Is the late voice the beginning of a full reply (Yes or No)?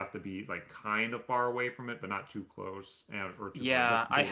Yes